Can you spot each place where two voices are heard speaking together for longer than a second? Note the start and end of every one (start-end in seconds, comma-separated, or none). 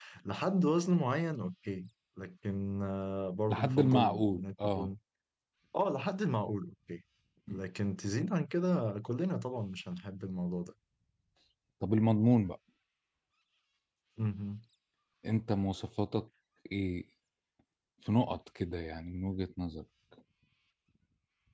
3.5-4.9